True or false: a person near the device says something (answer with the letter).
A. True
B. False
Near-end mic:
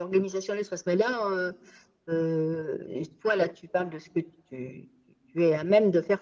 B